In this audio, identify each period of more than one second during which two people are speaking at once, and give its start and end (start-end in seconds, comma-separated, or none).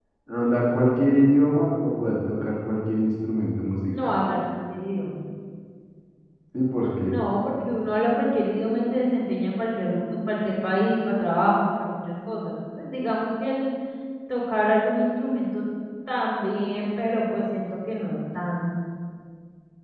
none